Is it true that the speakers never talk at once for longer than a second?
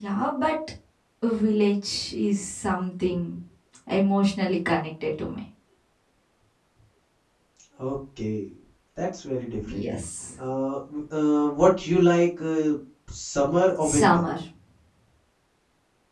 Yes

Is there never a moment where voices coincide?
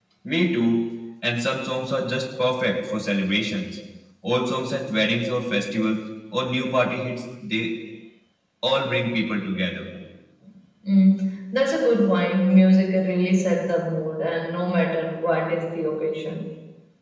Yes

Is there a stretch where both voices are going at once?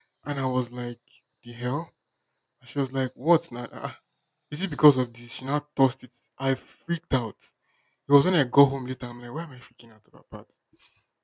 No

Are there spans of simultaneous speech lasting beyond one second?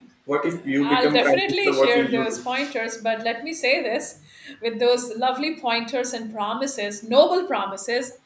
Yes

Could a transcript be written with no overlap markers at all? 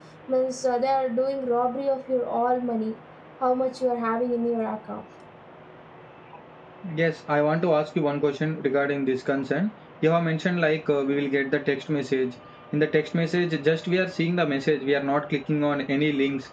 Yes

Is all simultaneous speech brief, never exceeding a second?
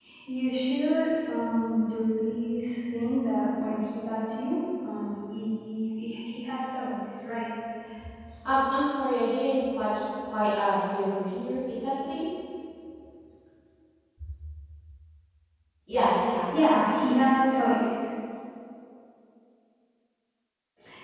Yes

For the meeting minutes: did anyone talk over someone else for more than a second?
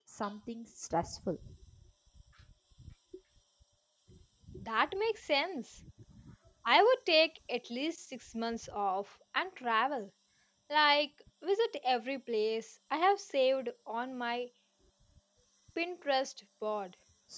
No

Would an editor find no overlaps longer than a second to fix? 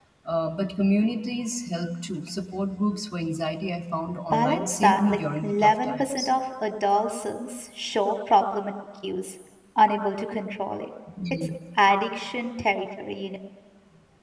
No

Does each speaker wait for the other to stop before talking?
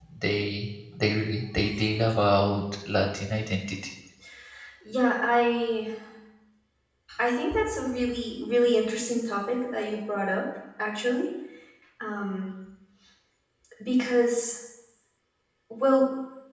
Yes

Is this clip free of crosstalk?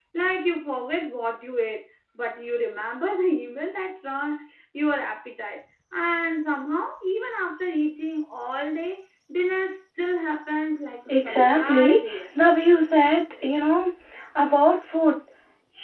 No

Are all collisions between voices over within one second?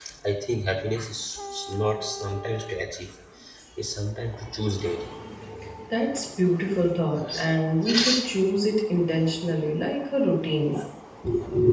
Yes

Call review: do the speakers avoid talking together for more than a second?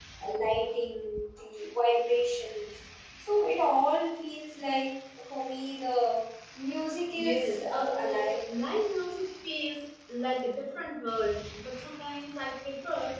No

